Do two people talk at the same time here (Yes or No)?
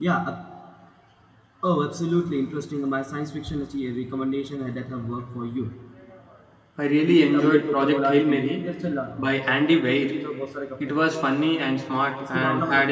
Yes